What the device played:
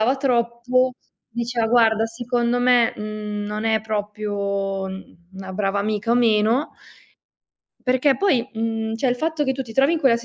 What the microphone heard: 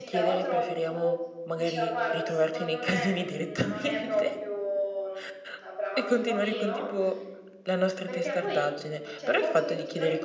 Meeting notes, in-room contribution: present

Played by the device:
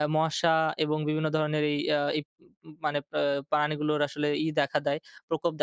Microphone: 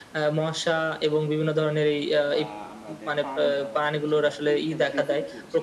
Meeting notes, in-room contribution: present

